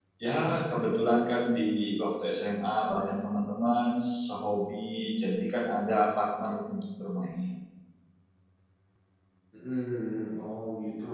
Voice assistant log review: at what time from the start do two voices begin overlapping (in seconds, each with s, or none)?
none